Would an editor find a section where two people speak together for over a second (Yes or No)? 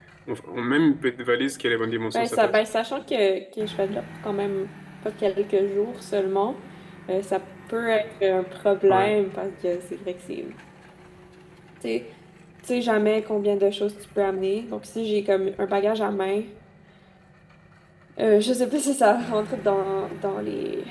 No